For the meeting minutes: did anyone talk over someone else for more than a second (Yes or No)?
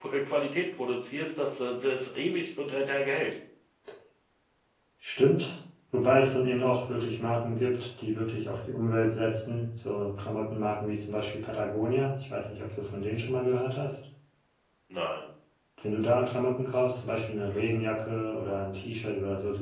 No